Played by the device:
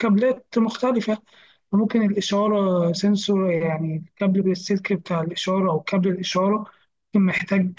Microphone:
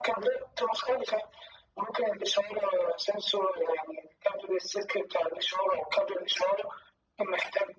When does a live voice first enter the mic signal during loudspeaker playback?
none

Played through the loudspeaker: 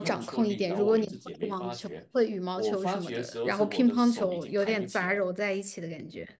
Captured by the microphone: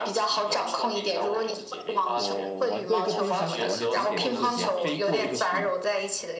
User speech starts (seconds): 2.1 s

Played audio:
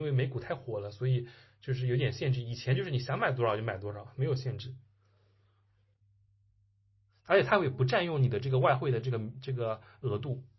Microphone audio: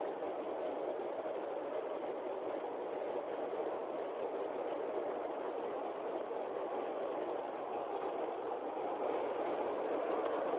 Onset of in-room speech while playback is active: none

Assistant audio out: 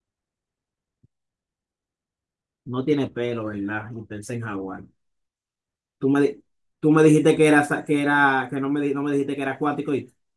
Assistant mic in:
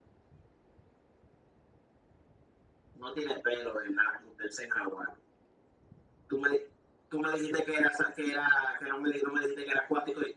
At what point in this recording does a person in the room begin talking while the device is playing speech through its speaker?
none

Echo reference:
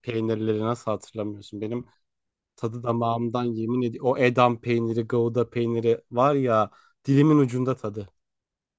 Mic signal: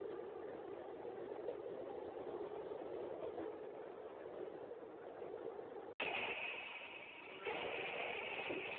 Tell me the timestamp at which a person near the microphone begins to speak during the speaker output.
none

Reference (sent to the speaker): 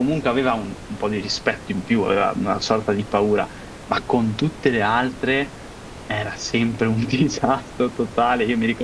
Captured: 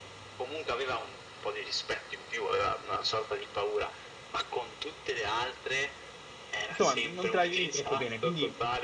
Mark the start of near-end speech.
6.7 s

